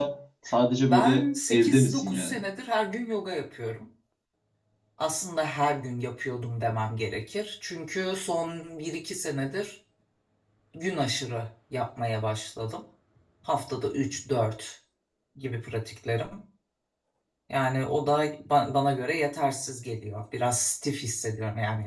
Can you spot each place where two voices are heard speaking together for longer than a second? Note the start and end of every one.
0.8-2.4

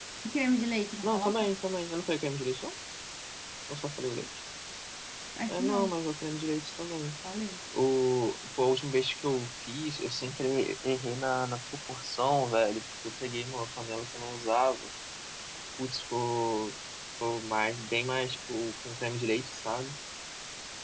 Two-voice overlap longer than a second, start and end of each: none

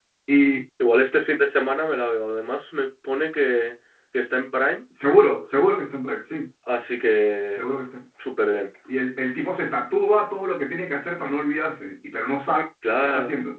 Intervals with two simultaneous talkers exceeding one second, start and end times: none

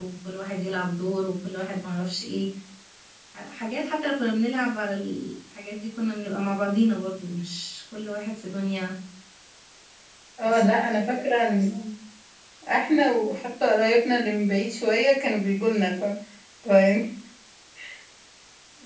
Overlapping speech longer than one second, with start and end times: 10.4-11.7

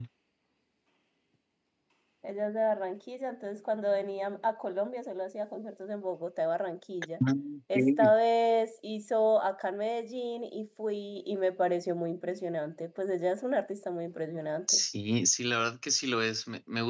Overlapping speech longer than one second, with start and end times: none

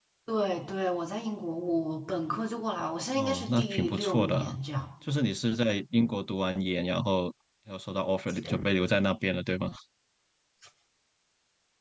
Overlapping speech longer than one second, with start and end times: 3.1-4.5

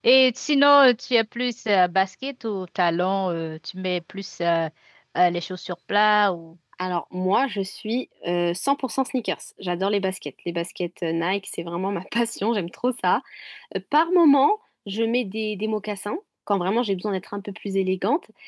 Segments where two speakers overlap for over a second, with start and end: none

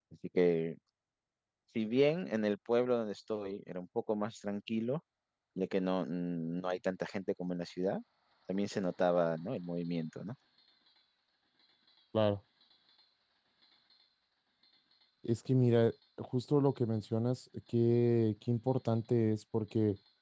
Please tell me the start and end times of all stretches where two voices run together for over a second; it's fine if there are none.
none

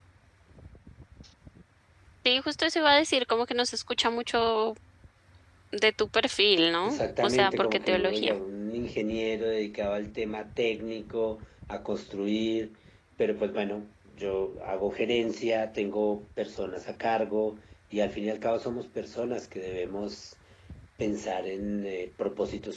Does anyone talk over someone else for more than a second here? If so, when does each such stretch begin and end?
6.8-8.3

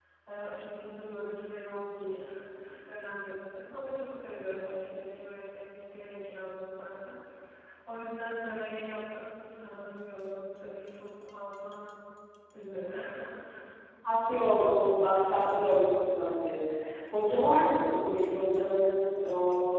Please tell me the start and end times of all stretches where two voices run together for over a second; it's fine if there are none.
none

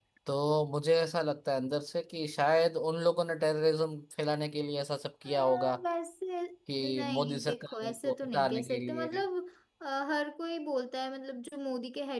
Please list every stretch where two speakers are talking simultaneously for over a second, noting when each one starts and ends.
6.9-9.1

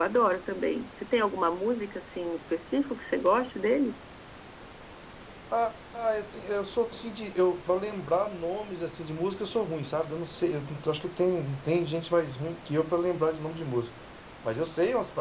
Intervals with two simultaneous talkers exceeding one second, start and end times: none

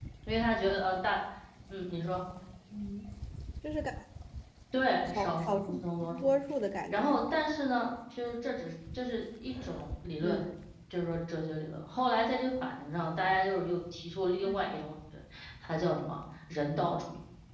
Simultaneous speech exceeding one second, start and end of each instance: 5.1-6.3

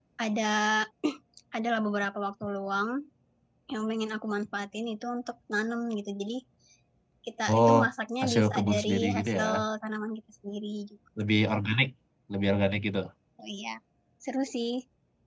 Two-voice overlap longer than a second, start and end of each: 8.2-9.4

